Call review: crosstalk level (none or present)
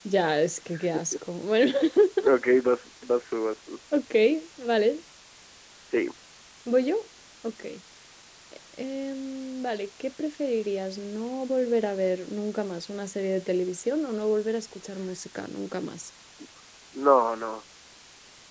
none